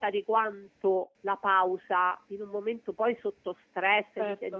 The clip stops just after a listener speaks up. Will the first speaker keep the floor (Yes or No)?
Yes